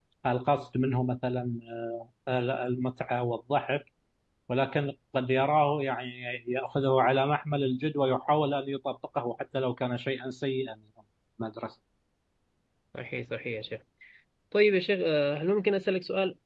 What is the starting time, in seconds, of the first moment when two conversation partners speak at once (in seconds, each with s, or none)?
none